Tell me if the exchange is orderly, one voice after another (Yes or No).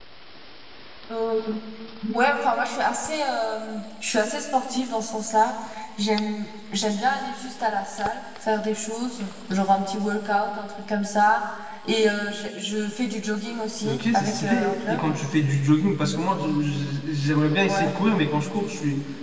No